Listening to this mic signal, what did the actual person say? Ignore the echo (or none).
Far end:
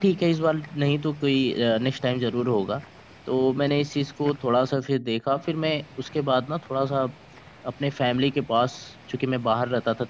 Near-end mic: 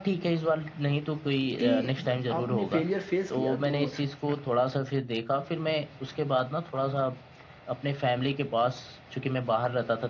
कि जब आपने फेलियर फेस किया तो